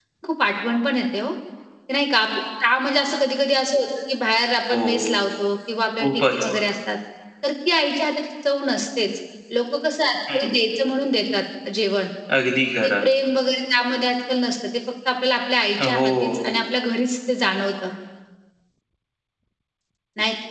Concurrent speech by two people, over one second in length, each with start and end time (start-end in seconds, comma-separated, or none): none